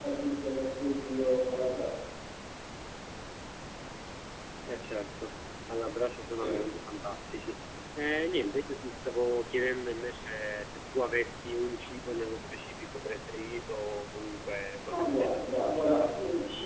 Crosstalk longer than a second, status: present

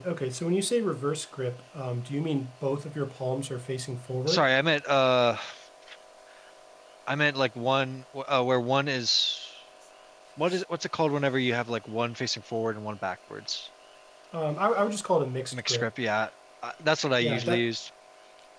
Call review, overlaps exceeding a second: none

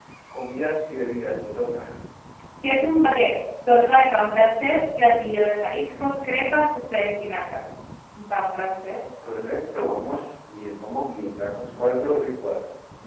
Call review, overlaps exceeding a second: none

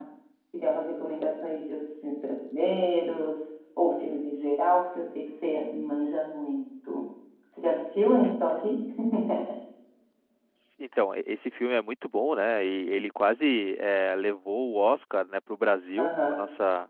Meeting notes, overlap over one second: none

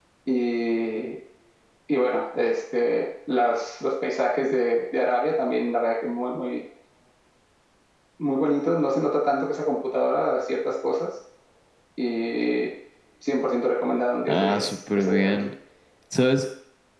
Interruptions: present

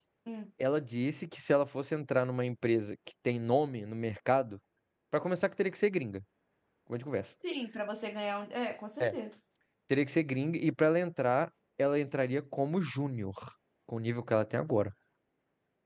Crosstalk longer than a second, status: none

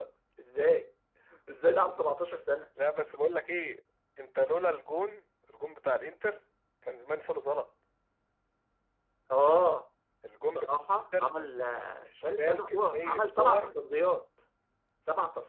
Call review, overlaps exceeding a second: present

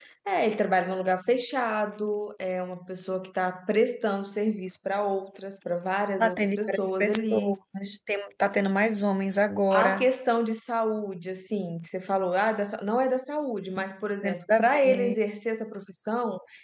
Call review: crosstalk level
present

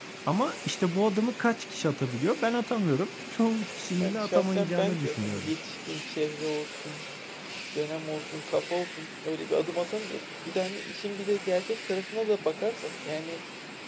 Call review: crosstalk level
present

